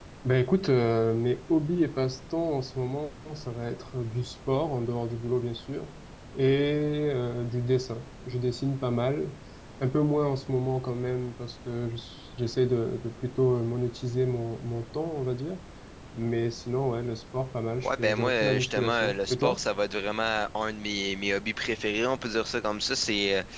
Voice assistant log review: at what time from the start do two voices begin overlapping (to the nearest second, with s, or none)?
18 s